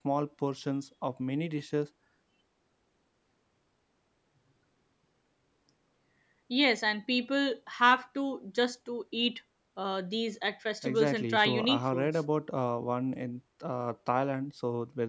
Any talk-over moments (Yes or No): Yes